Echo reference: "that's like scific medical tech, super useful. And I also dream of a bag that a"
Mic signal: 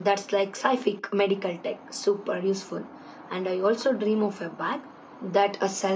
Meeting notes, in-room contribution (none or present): none